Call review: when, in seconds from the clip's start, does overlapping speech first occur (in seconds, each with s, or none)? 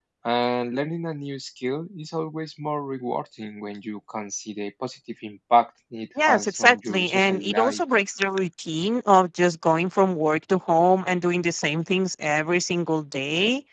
6.2 s